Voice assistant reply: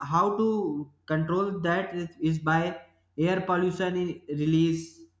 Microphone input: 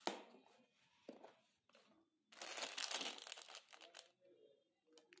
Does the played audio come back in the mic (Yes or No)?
No